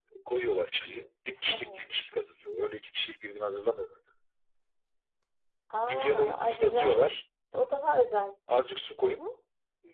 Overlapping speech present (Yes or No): Yes